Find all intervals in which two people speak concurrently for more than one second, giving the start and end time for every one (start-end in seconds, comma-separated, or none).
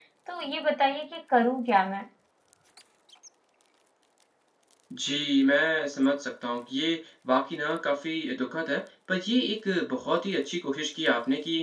none